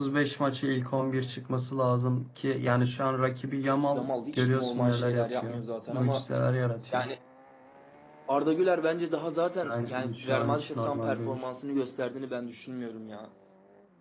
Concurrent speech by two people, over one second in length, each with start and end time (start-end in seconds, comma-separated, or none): 3.9-6.2, 9.6-11.4